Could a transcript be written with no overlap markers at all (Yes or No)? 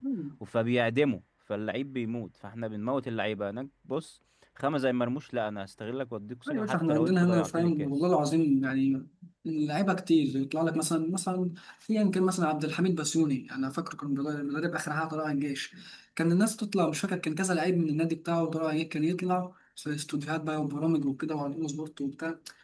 No